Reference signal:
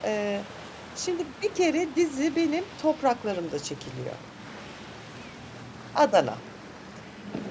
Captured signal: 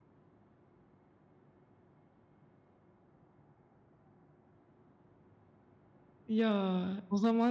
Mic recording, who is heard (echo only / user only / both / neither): user only